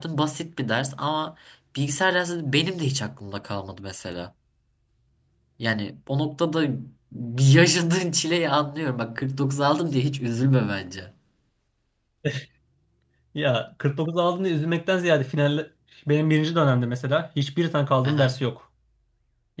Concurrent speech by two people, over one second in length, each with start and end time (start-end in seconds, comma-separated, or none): none